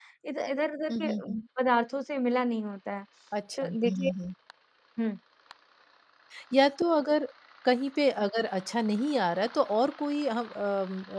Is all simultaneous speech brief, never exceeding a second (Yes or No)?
Yes